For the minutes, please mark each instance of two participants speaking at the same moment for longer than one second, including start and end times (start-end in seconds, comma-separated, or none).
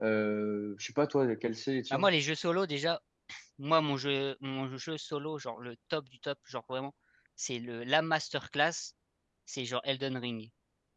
none